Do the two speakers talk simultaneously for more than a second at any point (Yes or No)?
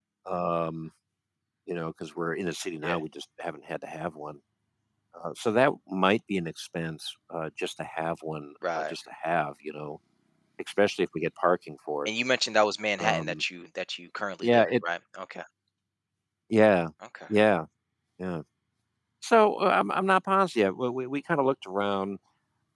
No